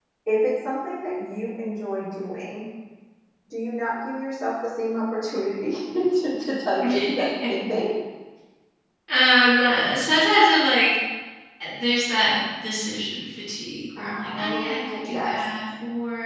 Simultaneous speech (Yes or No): Yes